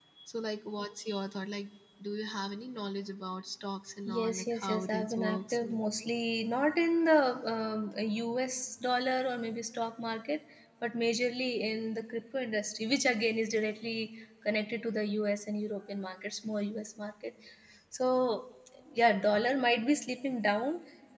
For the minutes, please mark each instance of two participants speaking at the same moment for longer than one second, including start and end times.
4.1-6.1

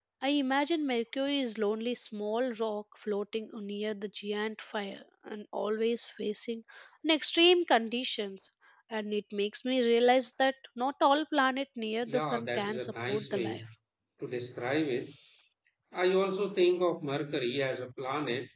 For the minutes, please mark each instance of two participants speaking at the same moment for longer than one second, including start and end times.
12.1-13.6

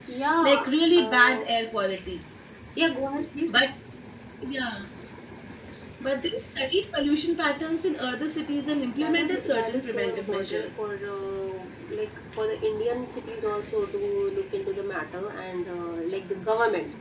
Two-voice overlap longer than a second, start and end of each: 8.9-10.8

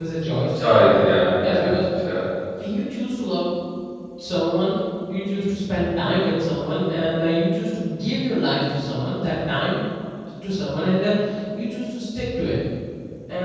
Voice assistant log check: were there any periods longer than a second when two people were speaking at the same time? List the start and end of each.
none

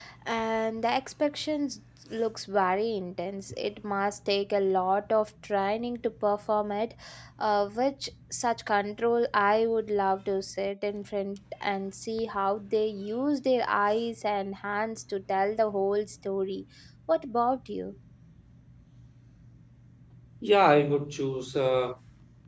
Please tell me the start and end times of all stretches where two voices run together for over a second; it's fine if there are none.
none

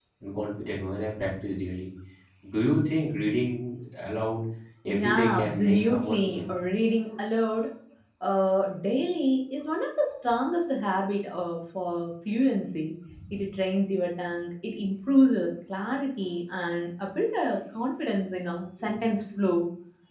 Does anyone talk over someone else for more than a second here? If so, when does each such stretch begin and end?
4.9-6.5

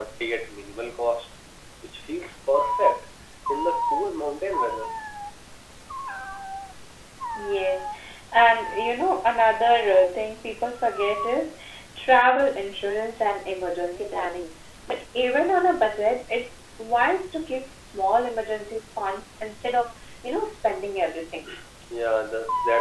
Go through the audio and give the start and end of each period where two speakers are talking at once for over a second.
none

